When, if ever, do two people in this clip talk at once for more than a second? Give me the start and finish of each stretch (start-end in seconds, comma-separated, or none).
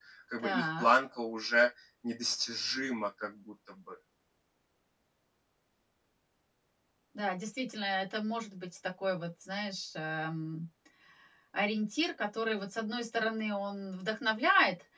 none